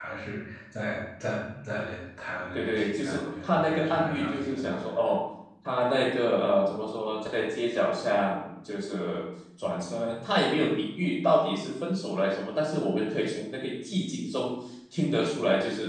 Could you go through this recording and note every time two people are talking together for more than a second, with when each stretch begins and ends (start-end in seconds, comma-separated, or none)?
2.5-4.6